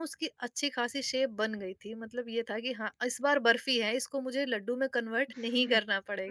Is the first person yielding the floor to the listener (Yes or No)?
Yes